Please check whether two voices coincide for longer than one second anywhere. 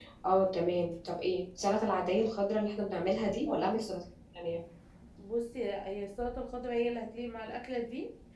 No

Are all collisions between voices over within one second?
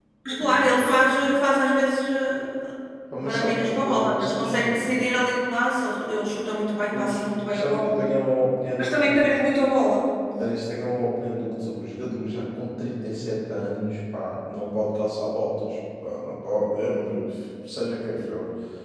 No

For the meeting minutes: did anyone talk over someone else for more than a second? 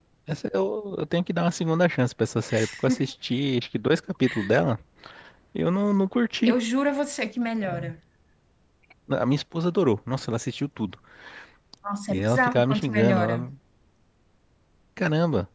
Yes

